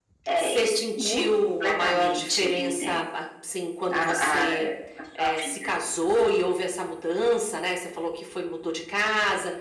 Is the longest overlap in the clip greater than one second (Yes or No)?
Yes